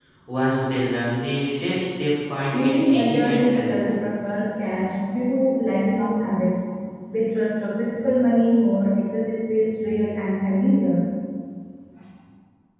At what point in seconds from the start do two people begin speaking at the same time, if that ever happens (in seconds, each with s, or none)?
2.5 s